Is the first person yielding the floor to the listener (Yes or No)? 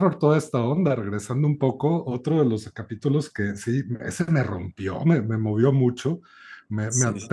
No